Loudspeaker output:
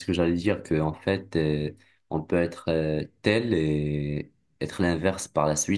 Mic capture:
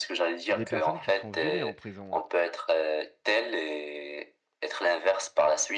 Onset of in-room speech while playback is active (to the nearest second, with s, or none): 0 s